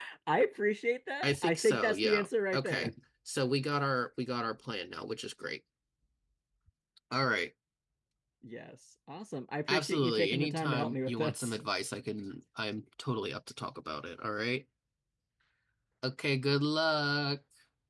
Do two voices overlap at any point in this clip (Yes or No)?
Yes